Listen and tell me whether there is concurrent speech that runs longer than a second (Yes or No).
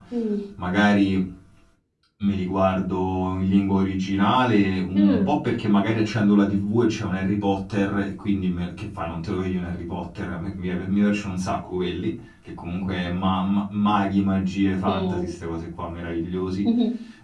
No